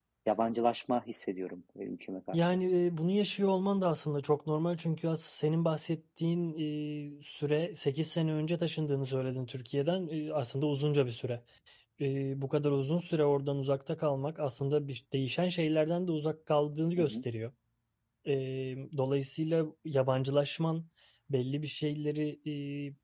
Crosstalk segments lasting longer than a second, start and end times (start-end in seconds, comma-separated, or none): none